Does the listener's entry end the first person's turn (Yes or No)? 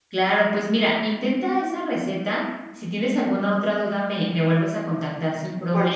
Yes